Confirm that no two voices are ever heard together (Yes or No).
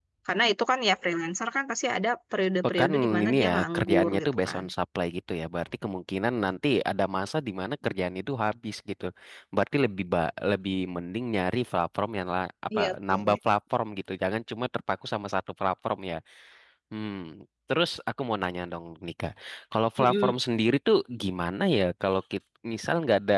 No